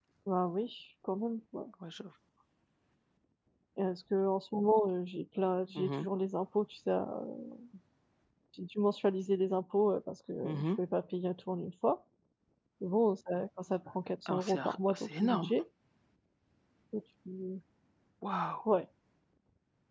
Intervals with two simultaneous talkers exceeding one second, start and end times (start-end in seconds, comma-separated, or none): 14.3-15.5